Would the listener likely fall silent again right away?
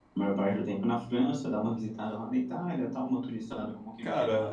No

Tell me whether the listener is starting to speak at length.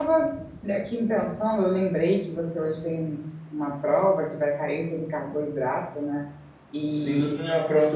Yes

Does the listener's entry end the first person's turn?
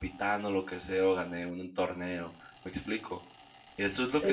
No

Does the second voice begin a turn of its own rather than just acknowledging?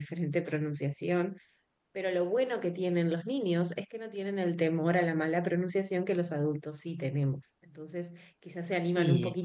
No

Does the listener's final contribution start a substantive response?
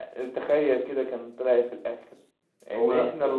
No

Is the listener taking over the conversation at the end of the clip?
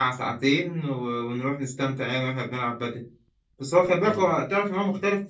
No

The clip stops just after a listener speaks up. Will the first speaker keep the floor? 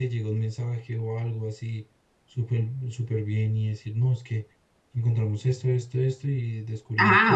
No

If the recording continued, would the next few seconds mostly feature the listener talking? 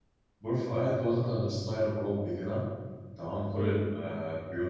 No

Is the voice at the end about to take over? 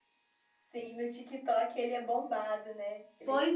Yes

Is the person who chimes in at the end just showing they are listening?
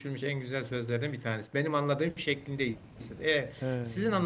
Yes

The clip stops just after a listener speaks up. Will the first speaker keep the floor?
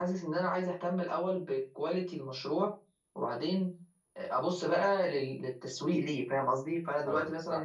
Yes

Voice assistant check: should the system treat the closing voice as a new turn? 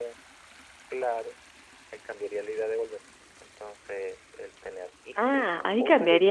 Yes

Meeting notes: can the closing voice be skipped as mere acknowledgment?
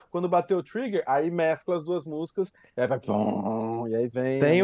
No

